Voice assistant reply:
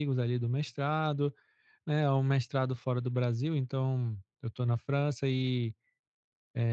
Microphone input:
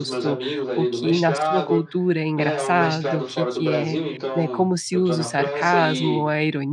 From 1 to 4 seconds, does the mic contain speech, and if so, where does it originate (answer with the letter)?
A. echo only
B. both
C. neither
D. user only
B